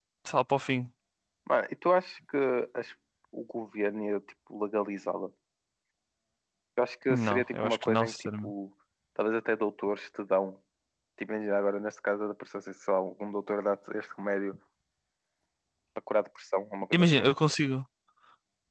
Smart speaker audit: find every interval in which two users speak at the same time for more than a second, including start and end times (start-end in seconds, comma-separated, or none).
7.1-8.5